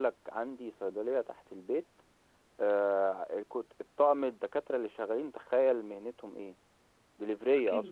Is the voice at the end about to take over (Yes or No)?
Yes